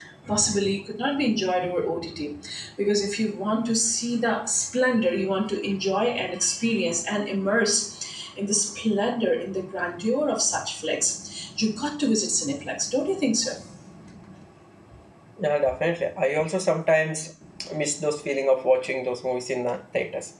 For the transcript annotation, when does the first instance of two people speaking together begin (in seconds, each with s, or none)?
none